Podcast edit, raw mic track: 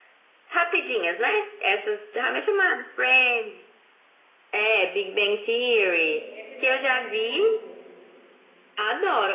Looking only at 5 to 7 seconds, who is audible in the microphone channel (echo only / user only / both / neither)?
both